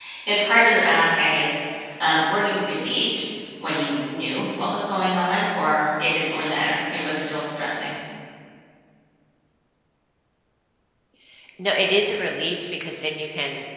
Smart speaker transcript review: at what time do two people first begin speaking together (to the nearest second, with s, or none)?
none